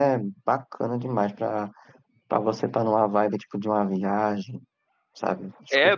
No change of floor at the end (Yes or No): No